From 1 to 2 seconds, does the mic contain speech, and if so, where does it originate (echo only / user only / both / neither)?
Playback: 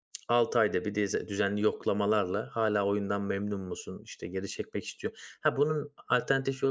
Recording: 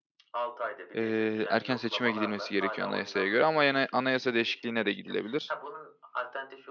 both